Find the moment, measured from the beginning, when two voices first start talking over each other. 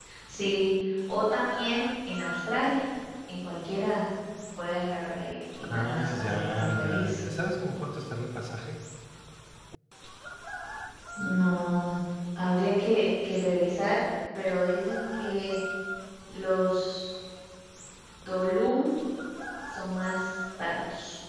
5.6 s

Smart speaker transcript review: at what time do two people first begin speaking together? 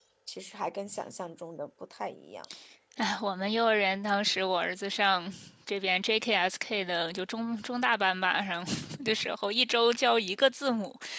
none

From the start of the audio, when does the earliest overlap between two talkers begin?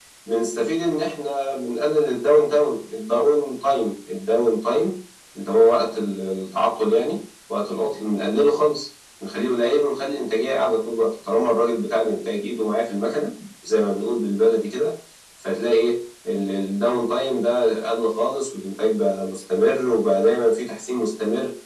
none

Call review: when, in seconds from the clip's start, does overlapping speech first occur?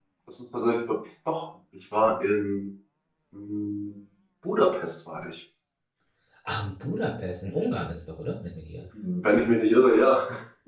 none

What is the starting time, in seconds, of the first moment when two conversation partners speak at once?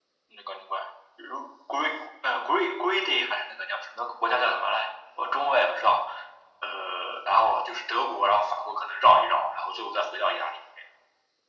none

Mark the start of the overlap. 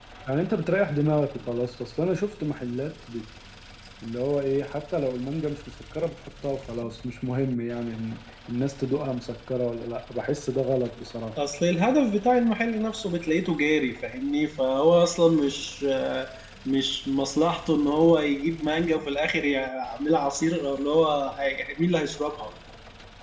none

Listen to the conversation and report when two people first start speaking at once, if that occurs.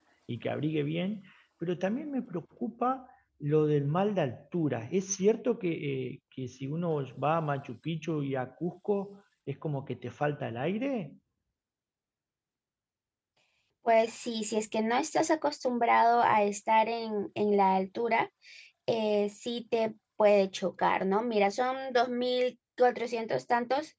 none

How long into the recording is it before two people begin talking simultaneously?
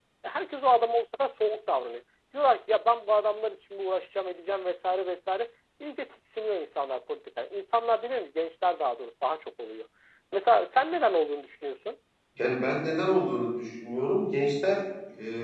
none

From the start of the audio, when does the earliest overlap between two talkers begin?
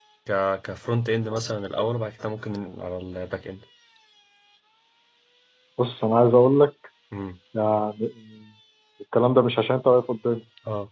none

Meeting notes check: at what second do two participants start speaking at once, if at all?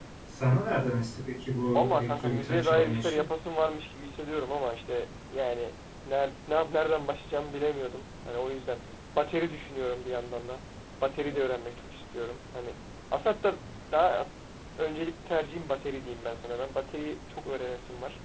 1.7 s

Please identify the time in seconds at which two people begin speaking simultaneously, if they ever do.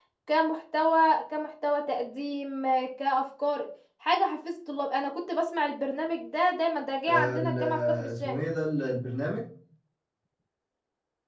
7.1 s

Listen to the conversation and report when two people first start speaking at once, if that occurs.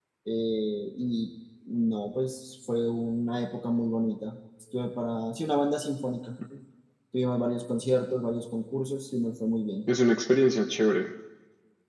none

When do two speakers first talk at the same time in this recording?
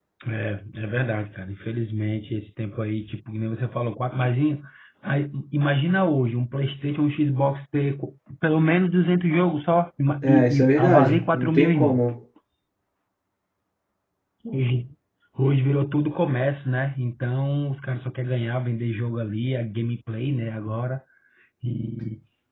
10.2 s

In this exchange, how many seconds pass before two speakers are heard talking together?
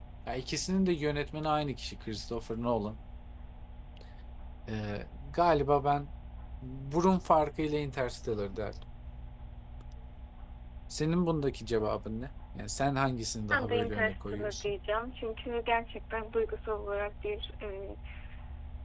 13.5 s

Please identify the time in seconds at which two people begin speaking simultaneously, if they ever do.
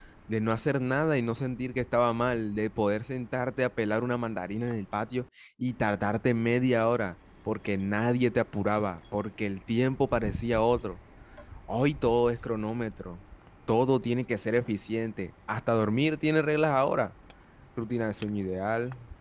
none

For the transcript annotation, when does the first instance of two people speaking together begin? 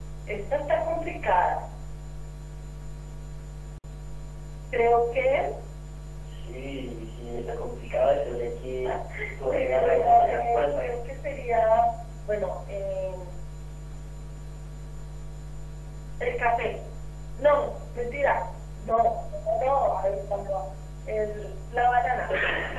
9.4 s

